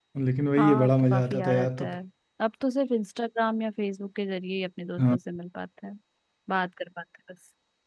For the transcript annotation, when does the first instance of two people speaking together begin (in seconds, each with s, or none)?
0.6 s